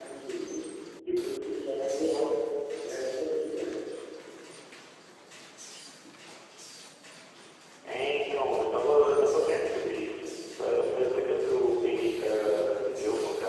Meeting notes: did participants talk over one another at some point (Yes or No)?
No